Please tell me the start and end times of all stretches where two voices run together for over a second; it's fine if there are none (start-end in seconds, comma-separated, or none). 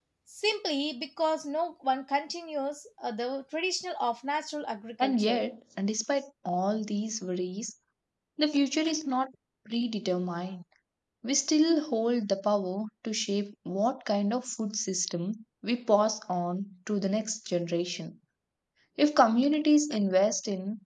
none